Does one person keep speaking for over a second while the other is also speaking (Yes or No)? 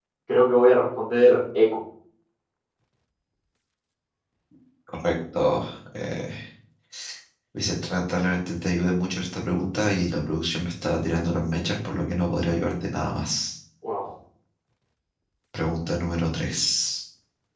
No